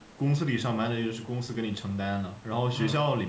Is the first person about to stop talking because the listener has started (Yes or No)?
No